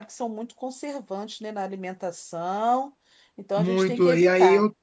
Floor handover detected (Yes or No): Yes